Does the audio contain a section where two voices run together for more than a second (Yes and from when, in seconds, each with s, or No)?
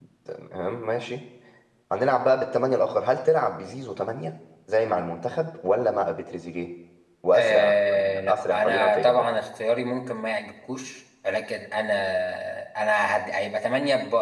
Yes, from 7.3 s